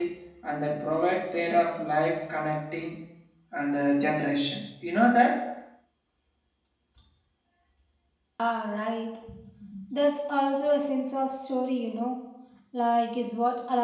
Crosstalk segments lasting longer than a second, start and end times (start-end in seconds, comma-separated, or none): none